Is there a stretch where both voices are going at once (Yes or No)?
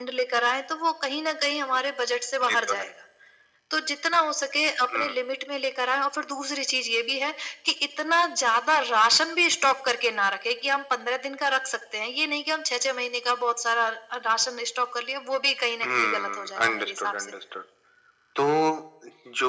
Yes